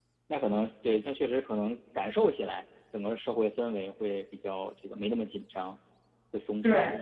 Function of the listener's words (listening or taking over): taking over